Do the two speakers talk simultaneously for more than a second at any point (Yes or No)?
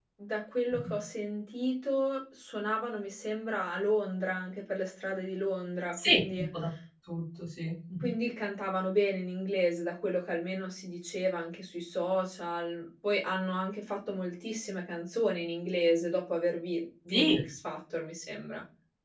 No